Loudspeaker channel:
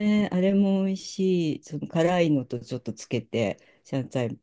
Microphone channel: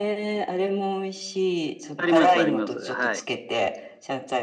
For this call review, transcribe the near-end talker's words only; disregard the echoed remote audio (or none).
あります、あります。はい。